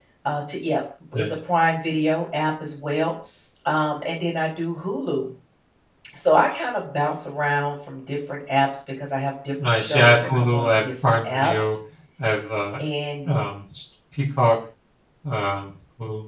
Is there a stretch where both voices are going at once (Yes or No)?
Yes